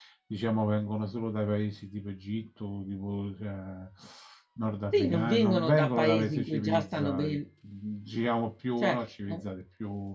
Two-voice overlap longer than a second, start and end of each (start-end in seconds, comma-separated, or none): 4.9-7.4